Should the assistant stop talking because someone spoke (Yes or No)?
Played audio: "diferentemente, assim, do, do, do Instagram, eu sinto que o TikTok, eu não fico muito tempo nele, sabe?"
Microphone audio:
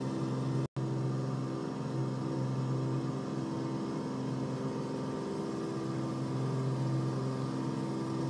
No